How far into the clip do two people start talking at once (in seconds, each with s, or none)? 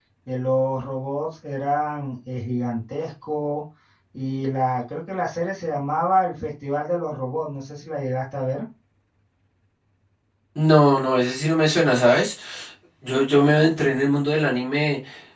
none